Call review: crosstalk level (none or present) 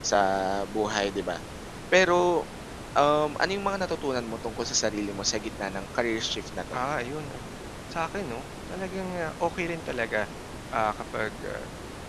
none